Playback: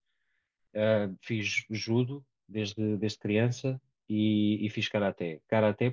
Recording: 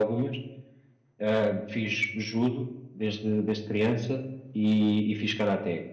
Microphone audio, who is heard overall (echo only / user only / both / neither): echo only